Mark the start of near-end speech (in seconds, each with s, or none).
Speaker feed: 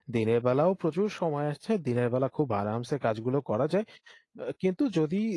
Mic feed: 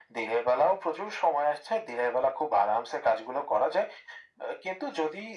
none